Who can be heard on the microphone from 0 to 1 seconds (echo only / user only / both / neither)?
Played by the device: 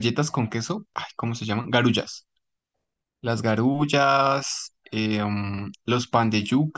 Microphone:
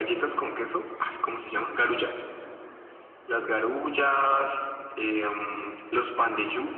echo only